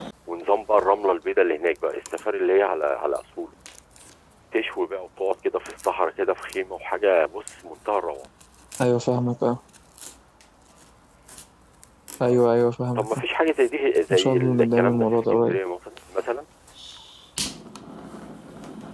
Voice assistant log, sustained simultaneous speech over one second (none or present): present